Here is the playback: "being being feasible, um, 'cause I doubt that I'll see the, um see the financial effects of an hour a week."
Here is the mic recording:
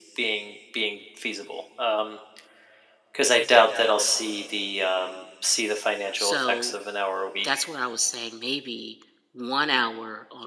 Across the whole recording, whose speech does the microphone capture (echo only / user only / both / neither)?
both